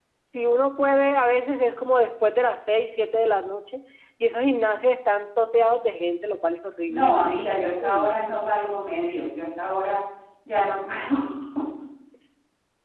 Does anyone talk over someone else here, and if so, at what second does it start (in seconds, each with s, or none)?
6.9 s